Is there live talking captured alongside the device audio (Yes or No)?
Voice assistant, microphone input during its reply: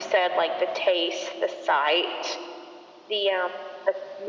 No